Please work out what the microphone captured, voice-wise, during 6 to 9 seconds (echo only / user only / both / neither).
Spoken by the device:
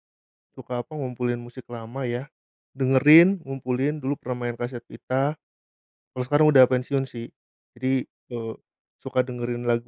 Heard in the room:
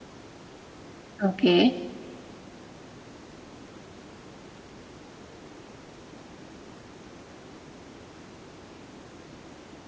neither